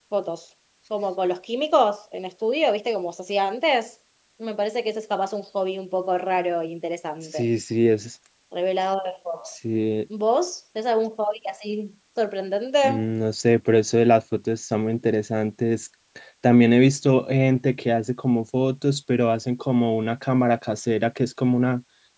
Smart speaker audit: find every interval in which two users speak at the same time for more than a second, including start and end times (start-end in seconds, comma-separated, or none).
none